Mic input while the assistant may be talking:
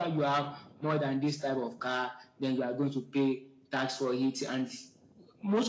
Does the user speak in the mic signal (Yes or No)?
No